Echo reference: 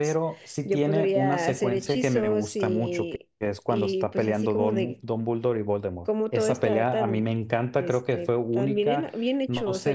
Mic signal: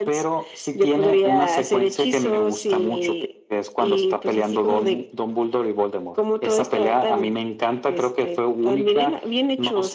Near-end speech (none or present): none